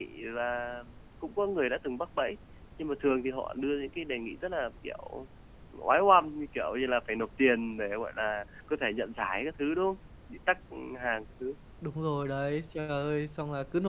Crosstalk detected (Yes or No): No